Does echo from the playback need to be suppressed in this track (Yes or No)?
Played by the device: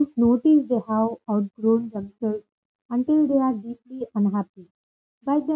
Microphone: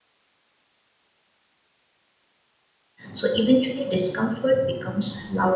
No